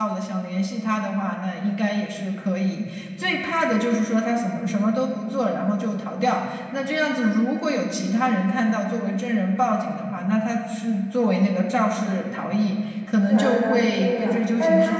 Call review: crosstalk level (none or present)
present